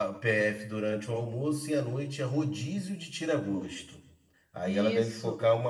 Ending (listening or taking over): listening